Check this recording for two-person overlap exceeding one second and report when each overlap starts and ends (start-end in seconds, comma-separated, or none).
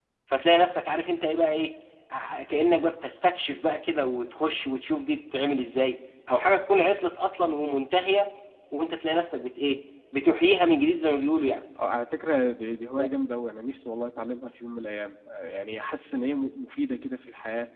none